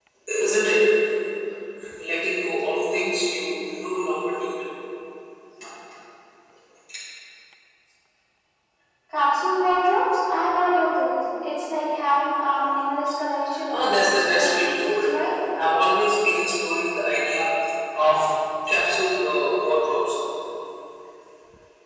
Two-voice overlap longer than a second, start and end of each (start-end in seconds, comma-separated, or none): 13.7-15.1